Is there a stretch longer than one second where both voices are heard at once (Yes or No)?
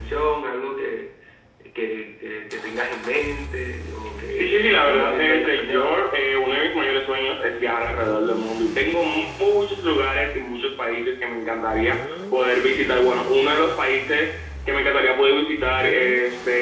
Yes